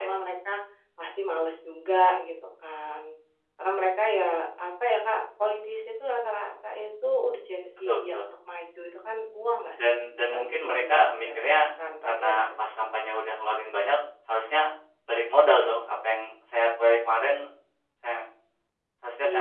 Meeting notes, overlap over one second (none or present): present